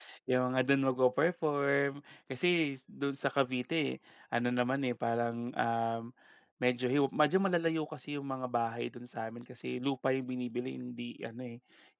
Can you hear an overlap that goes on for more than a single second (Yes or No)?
No